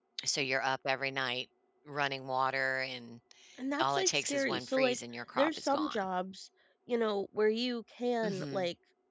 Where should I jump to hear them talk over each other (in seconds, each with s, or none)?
3.8 s